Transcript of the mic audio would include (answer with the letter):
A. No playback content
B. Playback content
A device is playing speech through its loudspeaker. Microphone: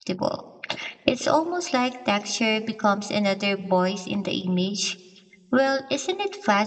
A